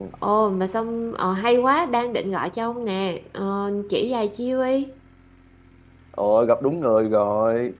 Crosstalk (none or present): none